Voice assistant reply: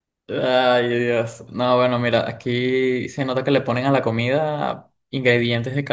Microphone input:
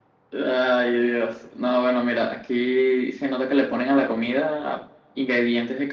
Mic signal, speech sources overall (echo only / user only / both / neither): echo only